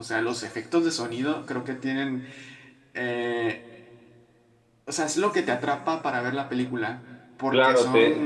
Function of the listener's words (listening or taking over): taking over